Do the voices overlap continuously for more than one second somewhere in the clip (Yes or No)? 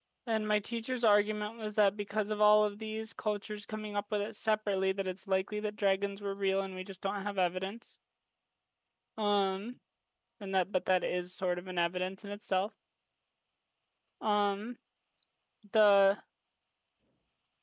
No